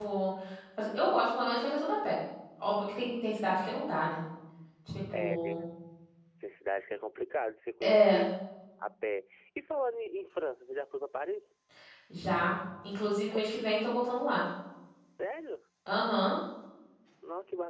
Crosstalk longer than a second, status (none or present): none